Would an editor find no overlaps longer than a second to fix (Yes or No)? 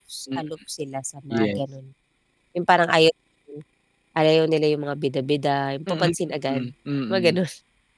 Yes